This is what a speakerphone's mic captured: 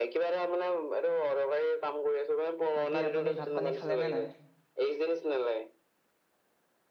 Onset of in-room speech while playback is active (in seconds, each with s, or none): 2.7 s